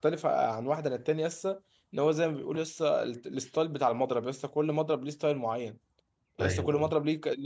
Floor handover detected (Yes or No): No